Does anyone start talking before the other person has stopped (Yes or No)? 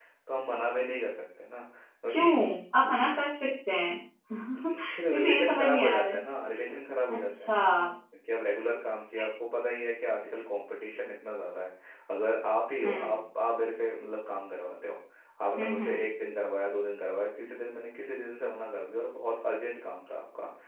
Yes